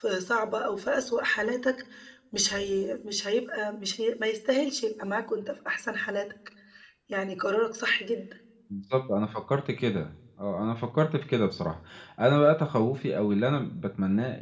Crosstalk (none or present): none